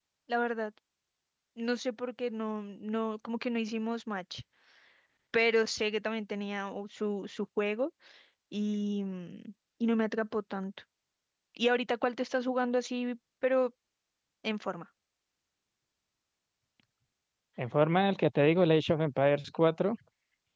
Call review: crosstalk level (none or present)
none